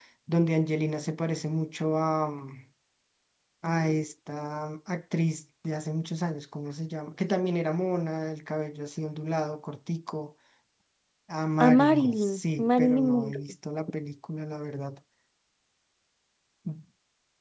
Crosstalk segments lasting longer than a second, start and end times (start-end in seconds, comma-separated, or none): 11.6-13.4